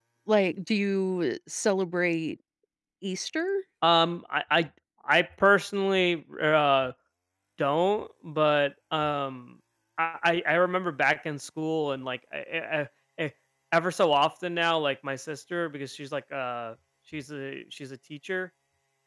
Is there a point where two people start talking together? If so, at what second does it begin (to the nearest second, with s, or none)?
none